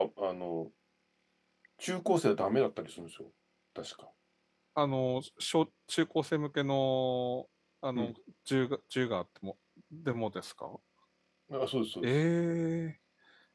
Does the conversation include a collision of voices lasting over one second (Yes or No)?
No